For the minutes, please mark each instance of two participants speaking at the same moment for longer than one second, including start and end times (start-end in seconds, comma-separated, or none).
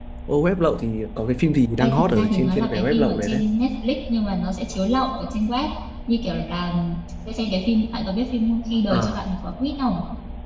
1.8-3.4